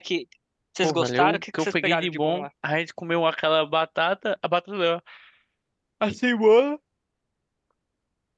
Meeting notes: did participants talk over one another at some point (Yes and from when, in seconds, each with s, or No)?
Yes, from 0.8 s